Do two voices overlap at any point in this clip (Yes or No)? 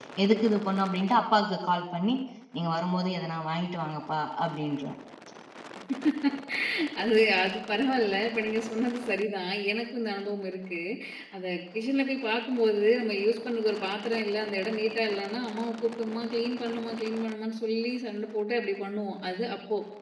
No